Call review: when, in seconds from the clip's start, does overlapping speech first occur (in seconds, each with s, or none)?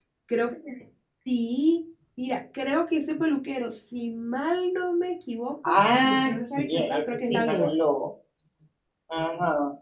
5.6 s